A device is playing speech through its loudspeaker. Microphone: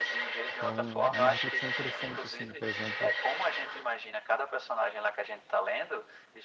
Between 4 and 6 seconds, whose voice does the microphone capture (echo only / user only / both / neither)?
echo only